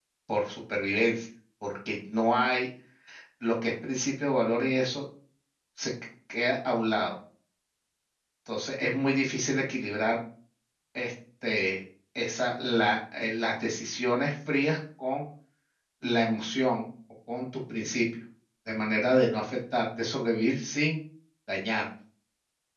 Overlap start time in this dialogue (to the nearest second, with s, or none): none